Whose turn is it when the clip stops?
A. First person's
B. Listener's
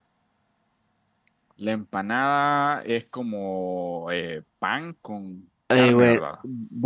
B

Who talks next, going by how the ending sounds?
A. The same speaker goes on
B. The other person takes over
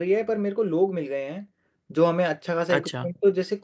A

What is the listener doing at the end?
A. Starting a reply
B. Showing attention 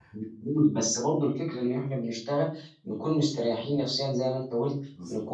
B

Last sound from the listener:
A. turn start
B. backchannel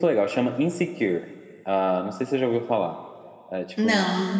B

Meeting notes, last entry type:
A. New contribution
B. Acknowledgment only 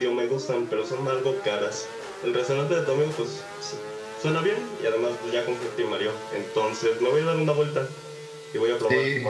B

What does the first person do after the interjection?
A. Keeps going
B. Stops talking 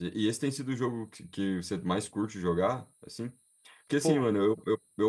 A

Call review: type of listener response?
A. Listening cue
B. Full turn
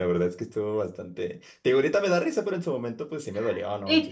B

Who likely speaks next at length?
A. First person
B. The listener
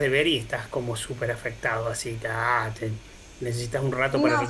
B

